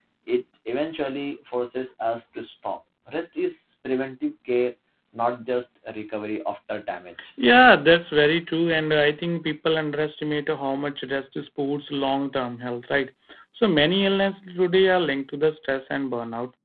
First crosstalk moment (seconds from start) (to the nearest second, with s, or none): none